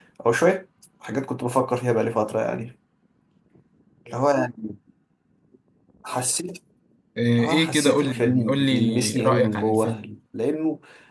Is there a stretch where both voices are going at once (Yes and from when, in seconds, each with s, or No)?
Yes, from 7.4 s